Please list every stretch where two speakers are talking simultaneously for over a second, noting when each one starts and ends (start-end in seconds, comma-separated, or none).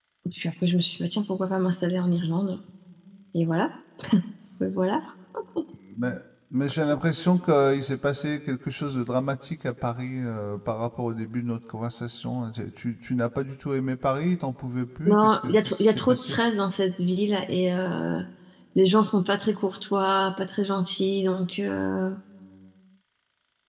15.1-16.4